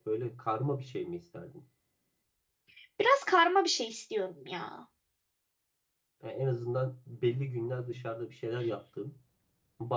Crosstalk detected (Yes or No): No